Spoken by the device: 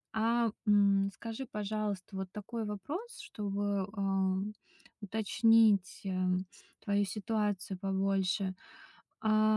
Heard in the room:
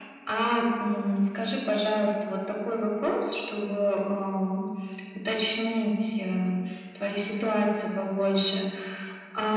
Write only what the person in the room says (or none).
Мгм.